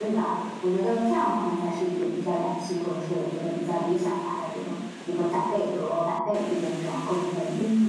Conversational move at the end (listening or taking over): taking over